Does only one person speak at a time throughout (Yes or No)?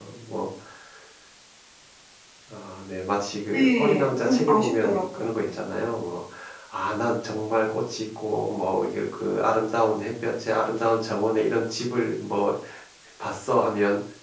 No